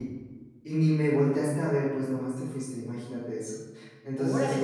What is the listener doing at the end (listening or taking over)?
taking over